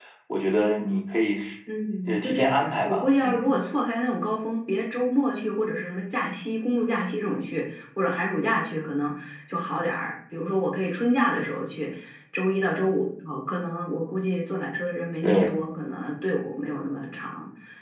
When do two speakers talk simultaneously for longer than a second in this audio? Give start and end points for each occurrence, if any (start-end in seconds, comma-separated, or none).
2.1-3.5